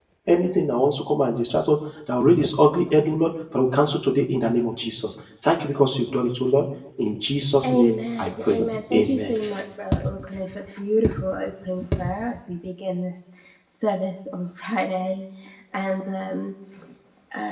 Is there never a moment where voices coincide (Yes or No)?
No